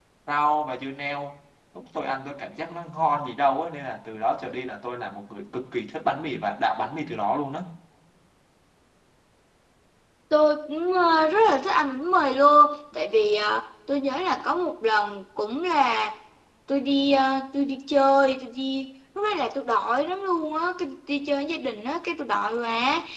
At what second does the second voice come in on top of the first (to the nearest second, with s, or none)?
none